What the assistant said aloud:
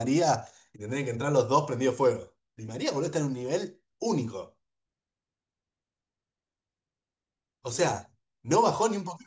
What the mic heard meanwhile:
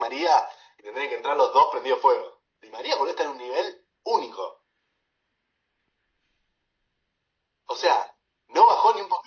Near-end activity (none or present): none